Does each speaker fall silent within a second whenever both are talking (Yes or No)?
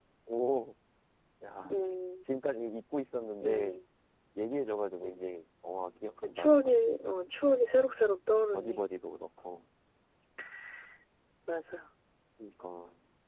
Yes